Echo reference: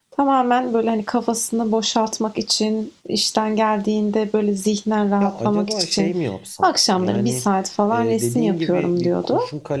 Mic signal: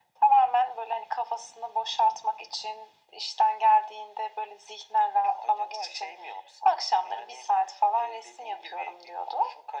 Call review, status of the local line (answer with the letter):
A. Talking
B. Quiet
B